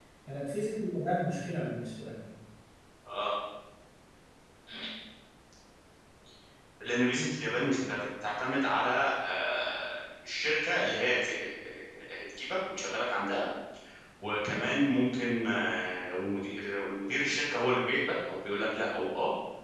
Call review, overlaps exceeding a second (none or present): none